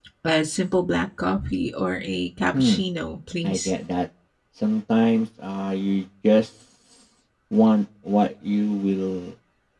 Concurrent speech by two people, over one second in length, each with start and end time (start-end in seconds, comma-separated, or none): none